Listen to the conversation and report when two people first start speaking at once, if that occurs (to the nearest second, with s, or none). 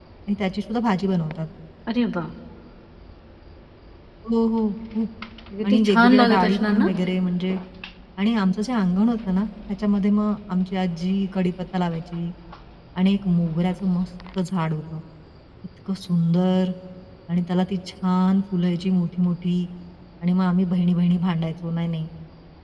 6 s